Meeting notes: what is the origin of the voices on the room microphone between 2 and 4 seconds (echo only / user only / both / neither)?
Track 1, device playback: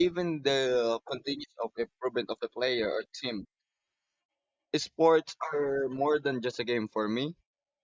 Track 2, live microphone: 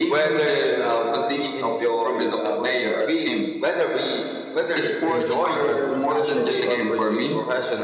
both